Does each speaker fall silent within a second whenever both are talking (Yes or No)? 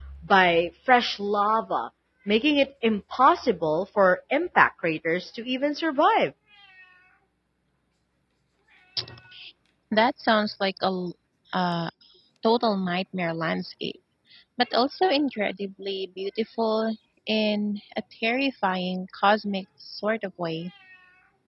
Yes